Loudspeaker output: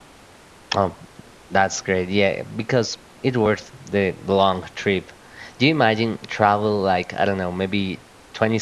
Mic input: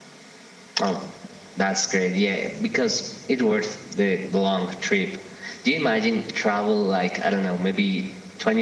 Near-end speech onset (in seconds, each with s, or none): none